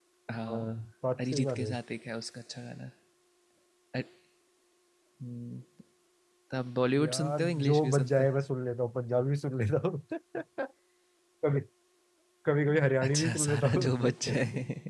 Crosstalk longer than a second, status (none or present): present